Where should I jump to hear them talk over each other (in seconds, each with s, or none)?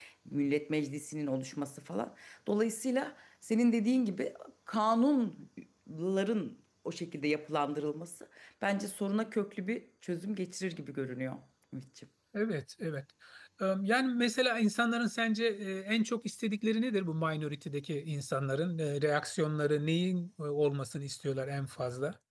none